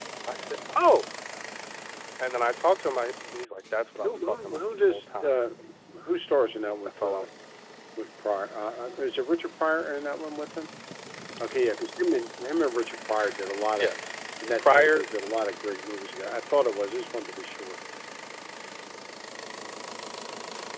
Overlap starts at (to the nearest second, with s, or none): 4 s